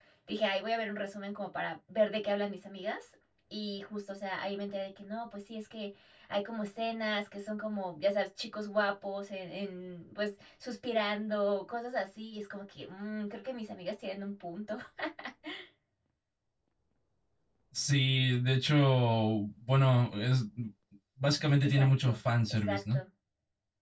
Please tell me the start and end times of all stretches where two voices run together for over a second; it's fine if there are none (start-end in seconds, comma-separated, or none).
none